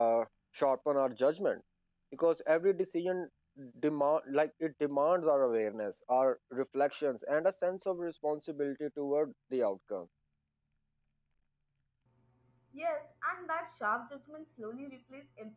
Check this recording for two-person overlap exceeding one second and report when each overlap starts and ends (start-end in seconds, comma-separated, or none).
none